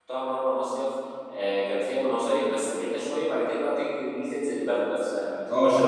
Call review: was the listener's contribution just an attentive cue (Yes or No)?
Yes